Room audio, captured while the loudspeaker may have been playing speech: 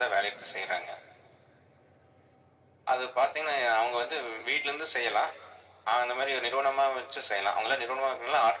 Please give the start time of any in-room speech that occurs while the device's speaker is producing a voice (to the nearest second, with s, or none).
none